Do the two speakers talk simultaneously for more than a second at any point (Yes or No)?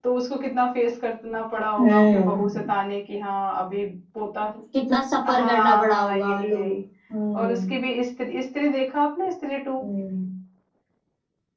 Yes